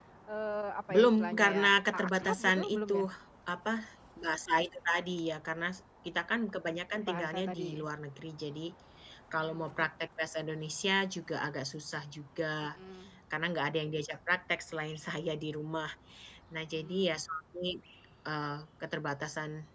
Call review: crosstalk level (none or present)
present